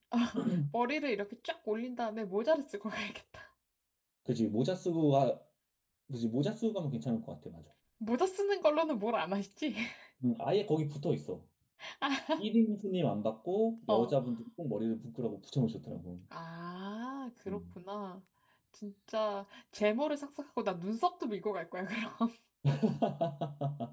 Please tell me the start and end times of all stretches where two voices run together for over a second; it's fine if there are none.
none

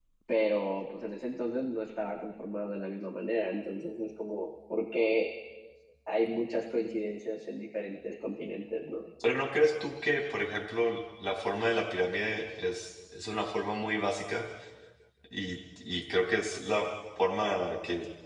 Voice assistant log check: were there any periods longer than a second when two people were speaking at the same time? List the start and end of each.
none

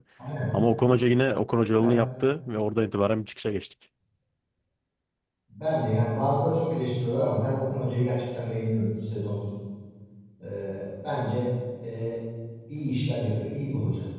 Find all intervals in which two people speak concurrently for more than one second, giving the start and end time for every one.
none

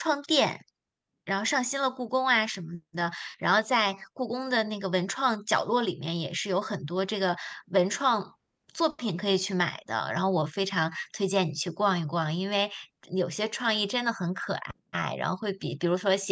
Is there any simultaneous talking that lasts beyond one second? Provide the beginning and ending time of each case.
none

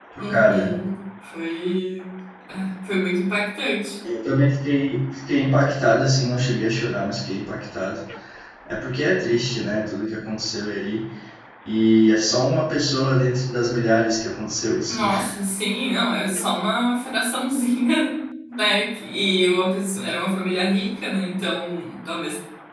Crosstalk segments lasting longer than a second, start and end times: none

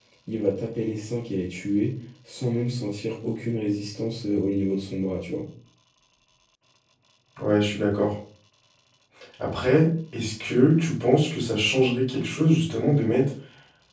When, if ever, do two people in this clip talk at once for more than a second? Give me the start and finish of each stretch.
none

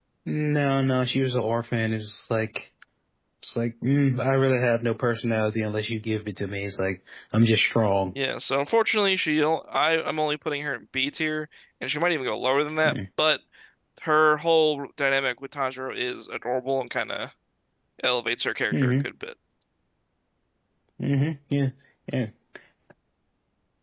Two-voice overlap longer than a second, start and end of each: none

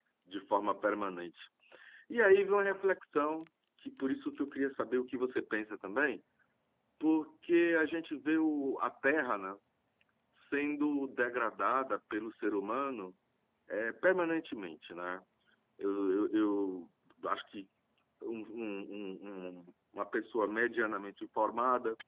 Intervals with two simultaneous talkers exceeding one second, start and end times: none

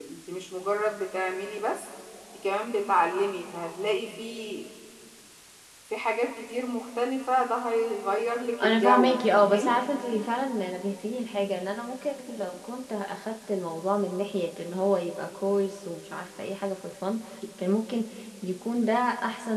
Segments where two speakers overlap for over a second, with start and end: 8.6-9.8

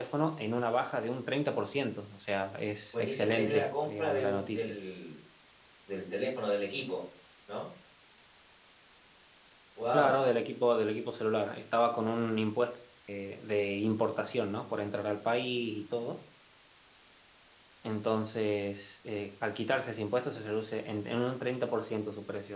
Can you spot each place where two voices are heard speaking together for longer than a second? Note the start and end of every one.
2.9-4.8

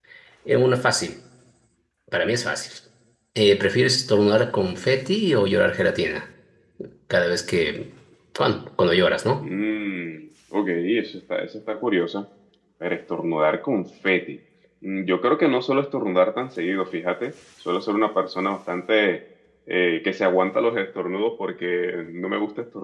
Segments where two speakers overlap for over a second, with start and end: none

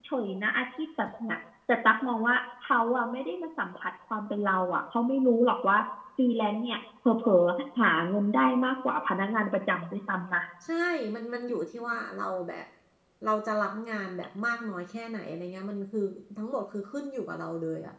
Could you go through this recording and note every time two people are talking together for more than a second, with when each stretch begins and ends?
none

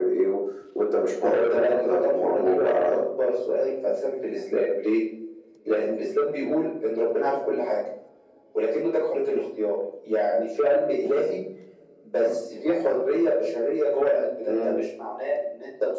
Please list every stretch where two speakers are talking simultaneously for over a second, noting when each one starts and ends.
1.2-3.0

